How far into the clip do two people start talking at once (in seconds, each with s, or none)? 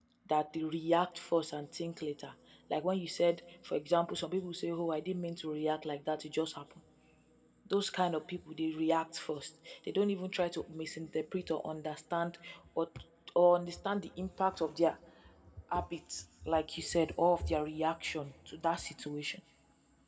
none